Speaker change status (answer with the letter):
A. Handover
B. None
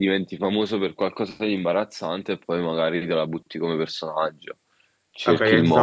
A